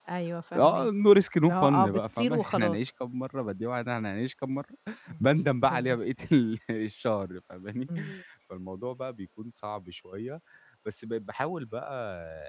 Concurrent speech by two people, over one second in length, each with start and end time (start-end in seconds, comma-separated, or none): 1.4-2.9